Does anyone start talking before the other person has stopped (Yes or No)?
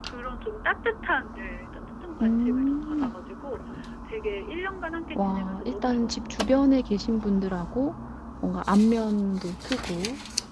Yes